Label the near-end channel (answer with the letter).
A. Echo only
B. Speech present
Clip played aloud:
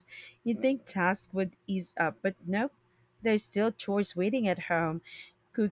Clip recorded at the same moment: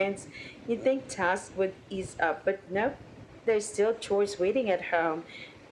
A